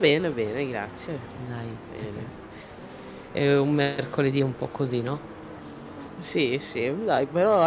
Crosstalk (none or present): none